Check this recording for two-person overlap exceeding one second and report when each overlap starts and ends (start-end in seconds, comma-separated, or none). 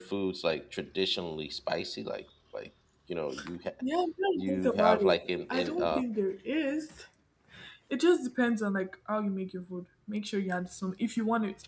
4.4-6.0